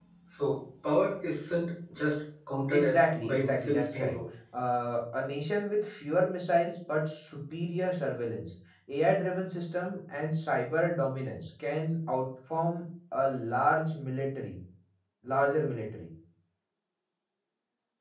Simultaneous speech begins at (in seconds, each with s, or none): 2.7 s